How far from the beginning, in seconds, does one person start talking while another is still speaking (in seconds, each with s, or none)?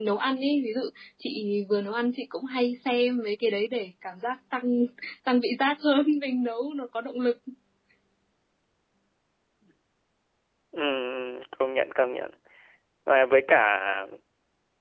none